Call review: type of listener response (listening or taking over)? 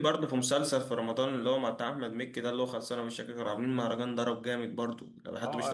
taking over